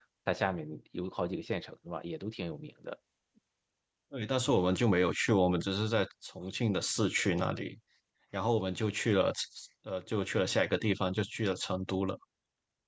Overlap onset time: none

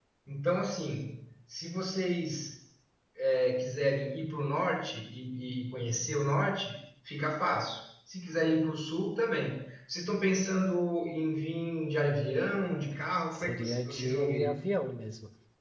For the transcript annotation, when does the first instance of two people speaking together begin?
13.3 s

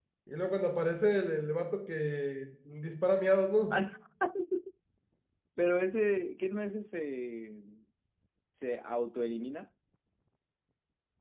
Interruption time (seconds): none

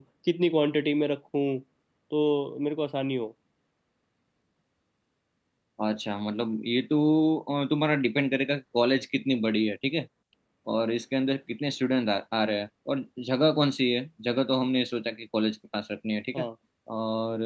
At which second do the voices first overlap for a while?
none

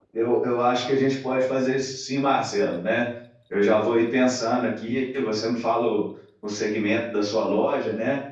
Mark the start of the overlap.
none

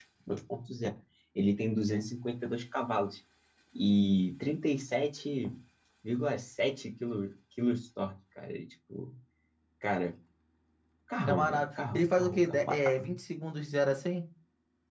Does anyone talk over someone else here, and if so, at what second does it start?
11.3 s

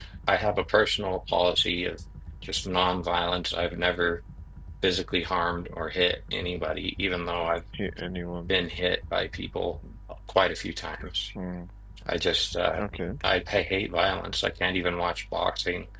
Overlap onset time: none

